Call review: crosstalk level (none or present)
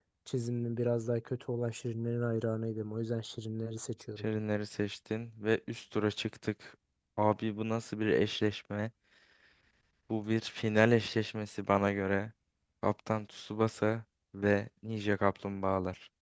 none